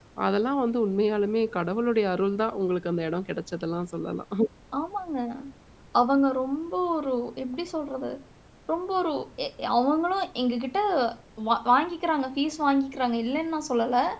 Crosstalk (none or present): none